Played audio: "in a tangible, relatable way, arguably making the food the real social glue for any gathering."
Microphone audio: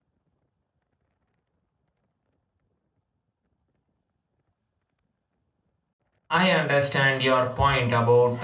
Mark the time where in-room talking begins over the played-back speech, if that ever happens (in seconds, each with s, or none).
6.3 s